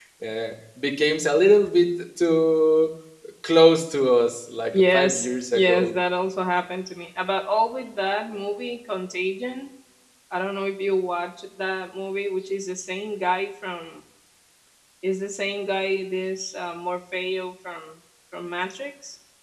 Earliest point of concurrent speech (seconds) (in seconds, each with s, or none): 4.7 s